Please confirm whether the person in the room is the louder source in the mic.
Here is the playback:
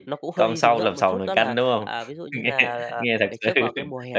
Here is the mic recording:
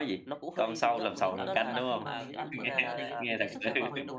No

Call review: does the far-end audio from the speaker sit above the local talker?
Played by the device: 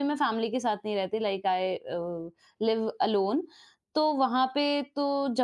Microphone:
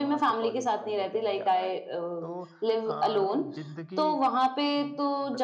Yes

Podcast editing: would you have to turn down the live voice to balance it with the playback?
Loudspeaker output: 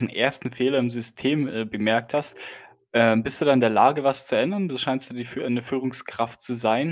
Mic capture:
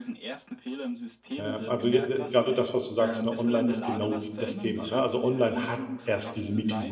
Yes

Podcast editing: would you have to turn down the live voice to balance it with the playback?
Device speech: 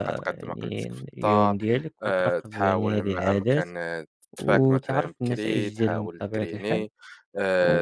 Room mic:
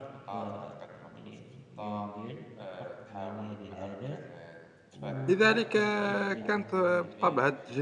Yes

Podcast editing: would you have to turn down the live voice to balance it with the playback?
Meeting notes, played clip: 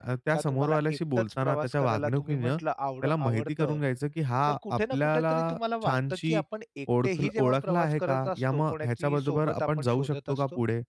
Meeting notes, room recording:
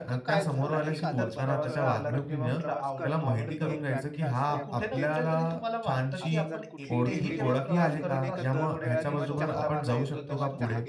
No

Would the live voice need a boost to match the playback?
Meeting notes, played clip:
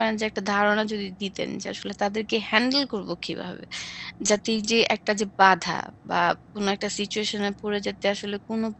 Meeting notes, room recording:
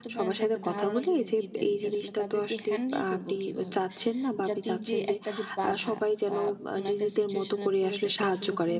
No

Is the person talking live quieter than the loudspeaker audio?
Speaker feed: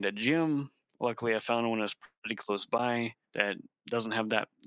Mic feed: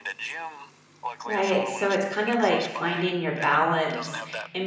No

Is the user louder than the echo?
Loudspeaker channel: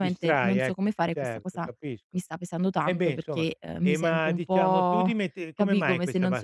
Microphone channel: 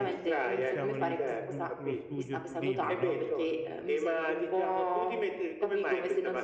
No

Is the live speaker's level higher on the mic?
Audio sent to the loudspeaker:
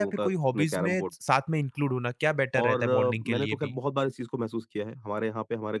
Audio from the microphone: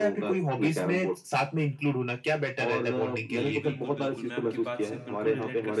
No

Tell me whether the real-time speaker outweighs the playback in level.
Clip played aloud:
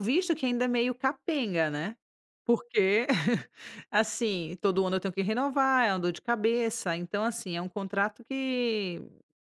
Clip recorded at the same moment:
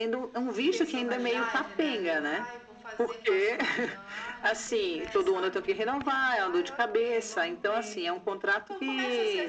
No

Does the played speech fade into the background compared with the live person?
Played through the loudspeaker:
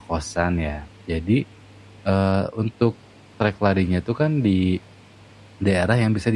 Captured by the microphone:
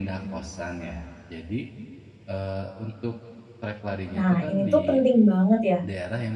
Yes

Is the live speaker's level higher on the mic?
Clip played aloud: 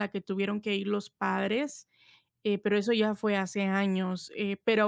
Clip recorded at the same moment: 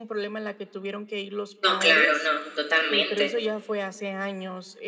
Yes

